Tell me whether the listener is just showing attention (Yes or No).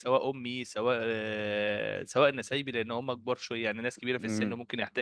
Yes